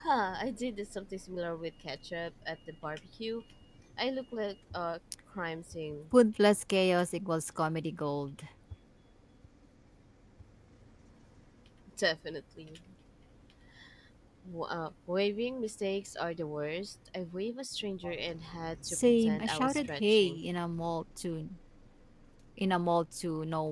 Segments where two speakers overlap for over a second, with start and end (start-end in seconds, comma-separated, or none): 18.9-20.4